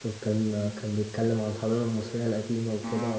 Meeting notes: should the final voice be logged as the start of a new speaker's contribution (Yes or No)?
No